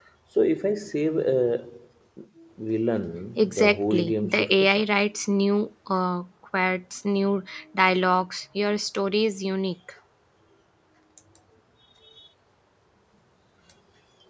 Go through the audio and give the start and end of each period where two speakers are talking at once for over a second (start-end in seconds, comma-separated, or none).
3.4-4.7